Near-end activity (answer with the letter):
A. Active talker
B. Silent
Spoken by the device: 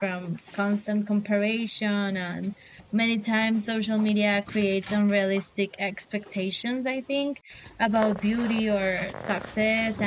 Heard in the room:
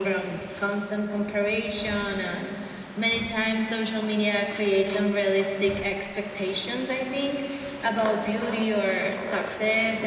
B